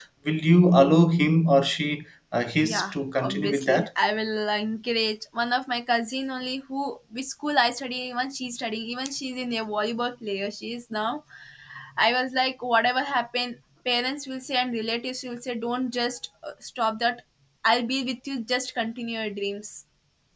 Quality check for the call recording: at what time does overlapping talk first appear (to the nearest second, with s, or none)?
3 s